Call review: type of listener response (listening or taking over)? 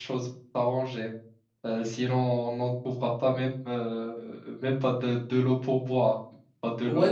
taking over